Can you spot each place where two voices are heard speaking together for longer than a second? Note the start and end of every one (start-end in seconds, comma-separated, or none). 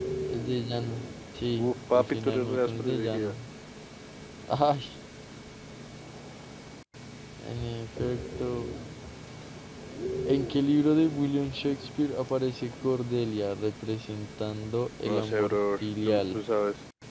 1.6-3.3, 15.0-16.4